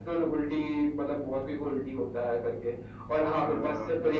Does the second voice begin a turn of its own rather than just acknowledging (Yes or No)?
No